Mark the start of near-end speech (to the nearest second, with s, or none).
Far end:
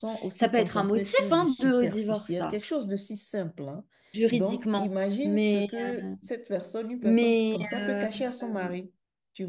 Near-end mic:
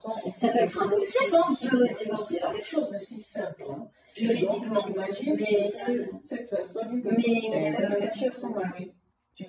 8 s